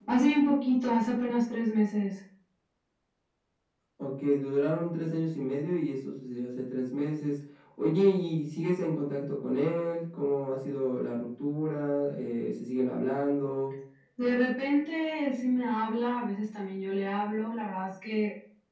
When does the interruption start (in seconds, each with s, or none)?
none